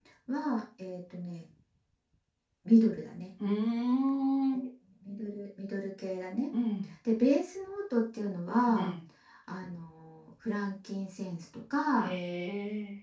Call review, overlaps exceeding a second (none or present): none